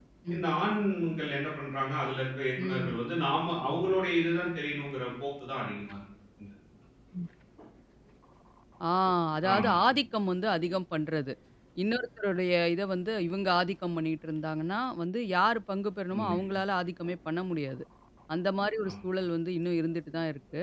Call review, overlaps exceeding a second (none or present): none